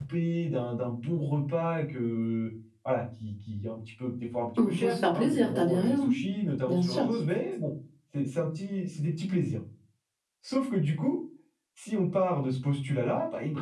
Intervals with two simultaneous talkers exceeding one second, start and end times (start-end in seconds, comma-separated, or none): 4.7-6.1